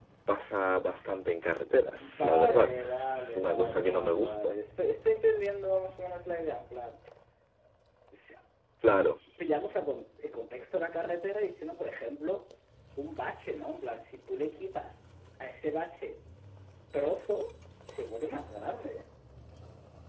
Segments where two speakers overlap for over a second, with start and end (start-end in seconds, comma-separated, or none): 2.0-4.6